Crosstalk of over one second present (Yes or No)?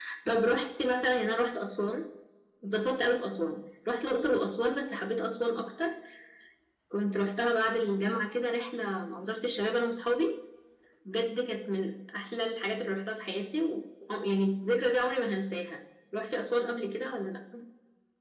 No